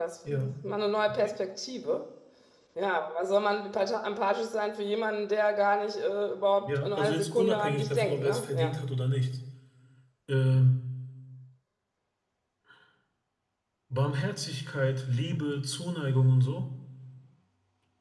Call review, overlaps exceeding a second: present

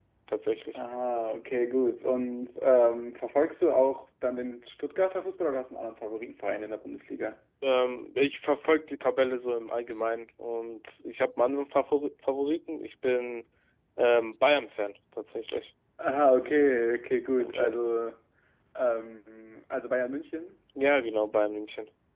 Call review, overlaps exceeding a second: none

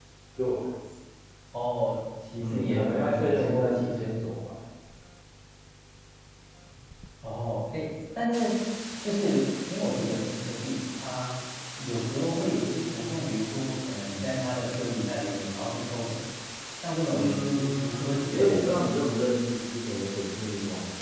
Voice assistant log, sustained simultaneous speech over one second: present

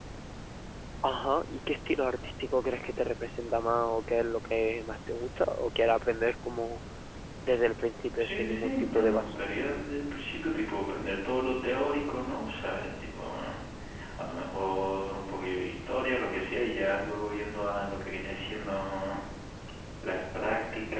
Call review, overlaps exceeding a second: present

